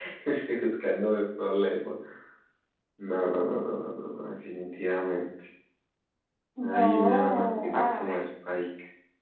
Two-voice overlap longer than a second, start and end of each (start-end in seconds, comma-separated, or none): 6.6-8.1